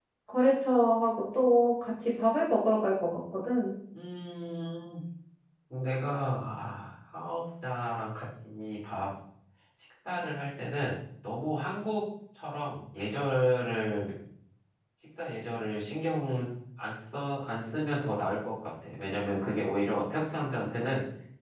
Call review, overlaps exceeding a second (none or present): none